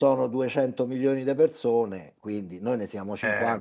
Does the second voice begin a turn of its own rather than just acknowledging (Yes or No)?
No